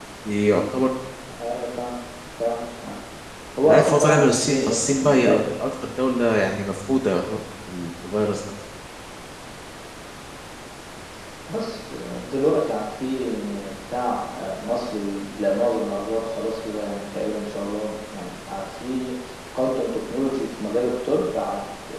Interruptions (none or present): present